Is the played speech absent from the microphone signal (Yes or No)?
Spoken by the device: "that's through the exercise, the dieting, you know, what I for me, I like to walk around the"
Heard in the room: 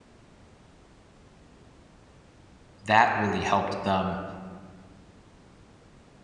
Yes